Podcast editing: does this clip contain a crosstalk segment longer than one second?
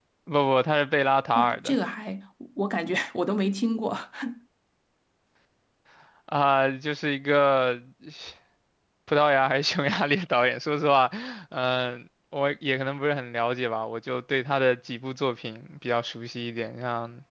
No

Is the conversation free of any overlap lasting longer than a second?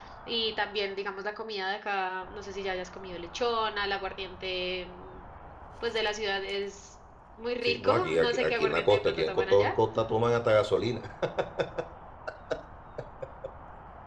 No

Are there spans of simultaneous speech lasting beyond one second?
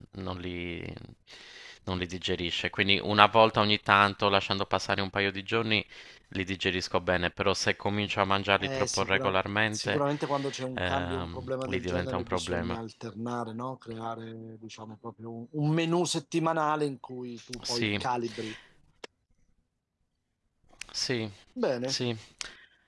Yes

